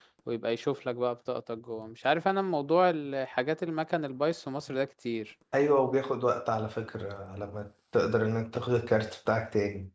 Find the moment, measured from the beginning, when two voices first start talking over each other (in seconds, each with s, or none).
none